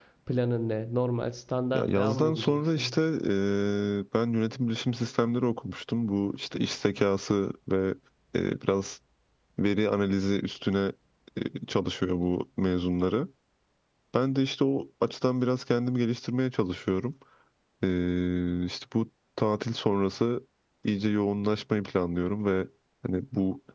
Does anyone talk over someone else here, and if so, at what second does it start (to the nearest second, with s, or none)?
2 s